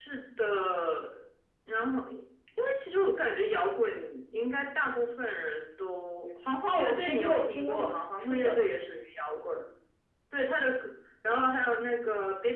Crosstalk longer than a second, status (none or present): present